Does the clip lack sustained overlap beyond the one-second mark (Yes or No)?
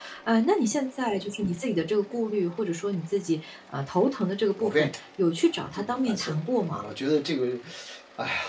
No